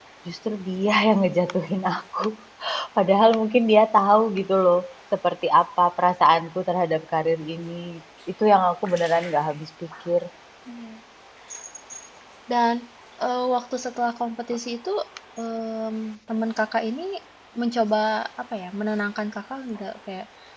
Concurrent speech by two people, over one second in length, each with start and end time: none

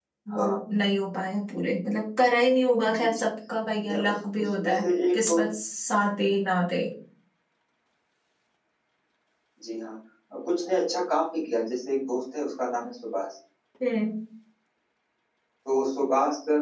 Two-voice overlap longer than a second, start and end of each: 3.9-5.4

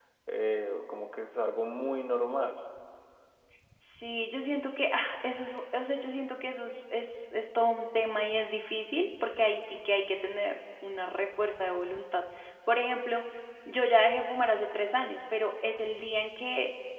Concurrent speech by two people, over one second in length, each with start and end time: none

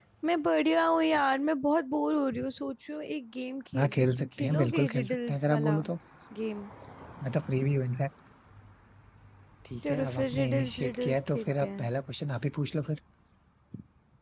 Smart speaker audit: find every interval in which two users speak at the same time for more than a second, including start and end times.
3.8-5.8, 9.9-11.8

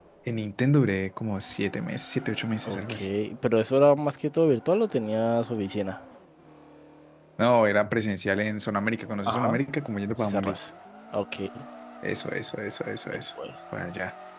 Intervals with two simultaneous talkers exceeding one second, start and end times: none

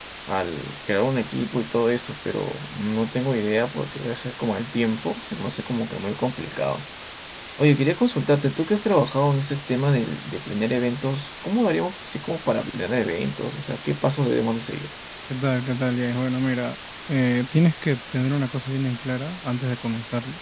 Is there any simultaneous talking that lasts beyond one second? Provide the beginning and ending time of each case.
none

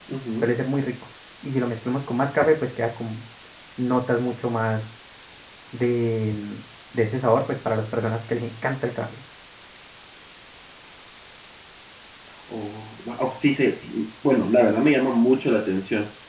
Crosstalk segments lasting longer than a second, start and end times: none

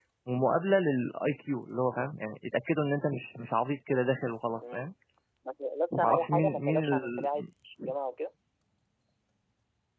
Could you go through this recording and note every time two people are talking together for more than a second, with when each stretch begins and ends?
6.0-7.3

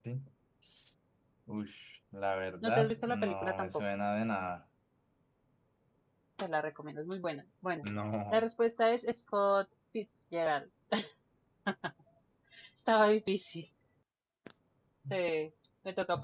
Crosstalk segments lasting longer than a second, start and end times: 2.6-3.8

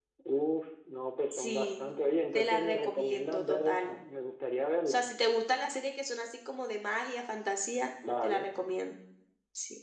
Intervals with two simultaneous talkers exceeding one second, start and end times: 2.3-4.0

